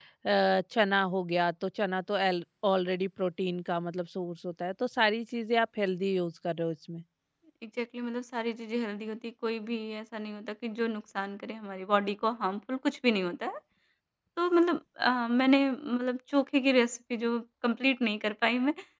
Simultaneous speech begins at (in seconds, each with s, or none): none